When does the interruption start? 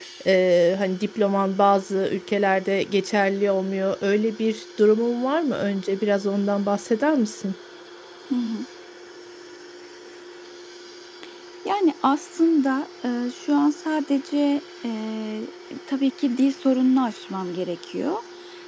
none

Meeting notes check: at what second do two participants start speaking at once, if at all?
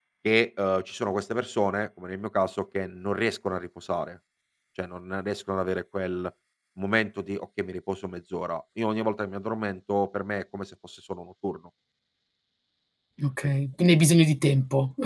none

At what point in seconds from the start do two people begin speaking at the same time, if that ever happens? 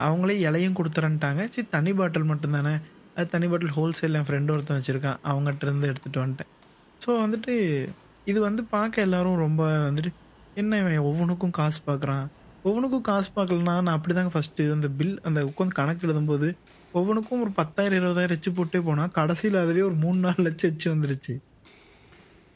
none

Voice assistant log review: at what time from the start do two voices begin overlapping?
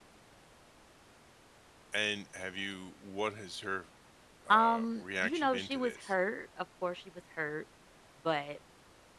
4.5 s

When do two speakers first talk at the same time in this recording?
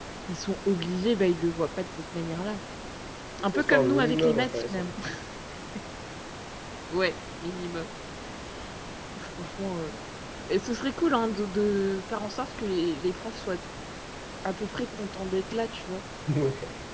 3.5 s

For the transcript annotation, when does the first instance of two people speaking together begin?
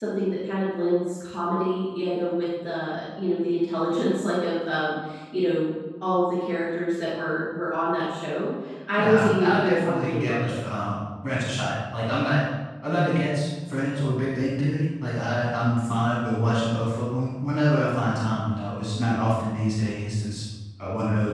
9.0 s

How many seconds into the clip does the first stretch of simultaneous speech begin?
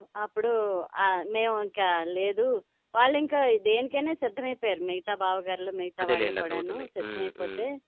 6.0 s

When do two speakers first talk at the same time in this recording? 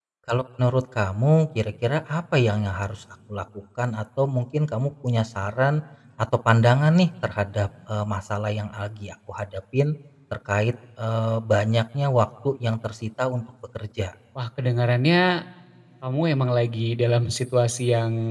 none

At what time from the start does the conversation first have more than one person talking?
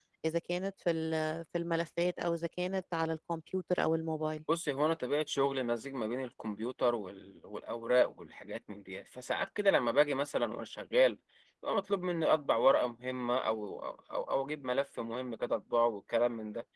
none

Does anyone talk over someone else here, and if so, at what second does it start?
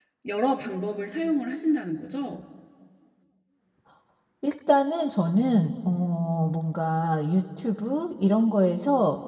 none

